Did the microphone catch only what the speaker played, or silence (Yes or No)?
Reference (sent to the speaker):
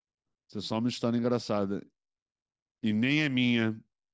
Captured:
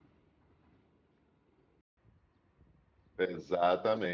No